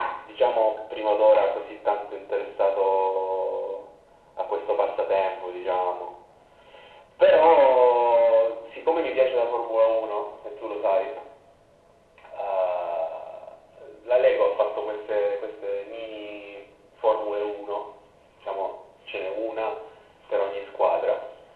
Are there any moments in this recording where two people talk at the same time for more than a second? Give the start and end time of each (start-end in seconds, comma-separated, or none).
none